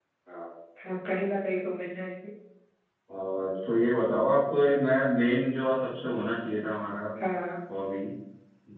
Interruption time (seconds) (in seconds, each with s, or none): none